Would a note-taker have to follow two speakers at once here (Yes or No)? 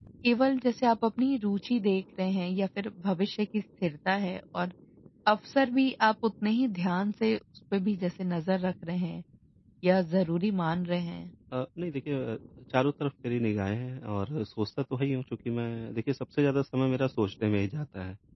No